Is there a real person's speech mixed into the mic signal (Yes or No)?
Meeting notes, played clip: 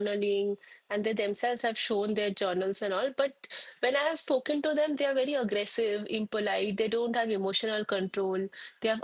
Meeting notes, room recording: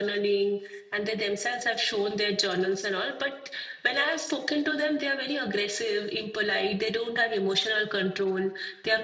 No